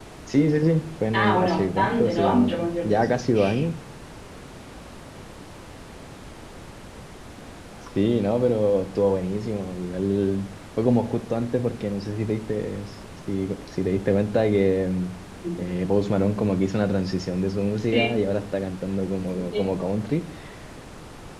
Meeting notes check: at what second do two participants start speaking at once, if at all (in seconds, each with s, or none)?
1.1 s